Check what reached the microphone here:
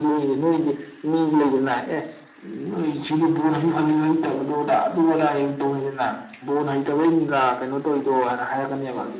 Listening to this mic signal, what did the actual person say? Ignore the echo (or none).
none